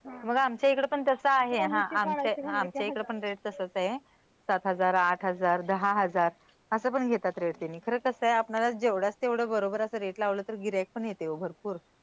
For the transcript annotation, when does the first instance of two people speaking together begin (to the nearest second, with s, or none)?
1 s